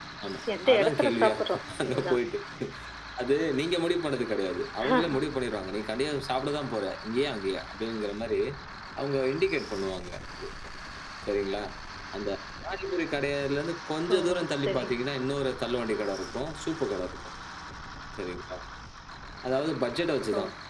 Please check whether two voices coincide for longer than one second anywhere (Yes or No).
Yes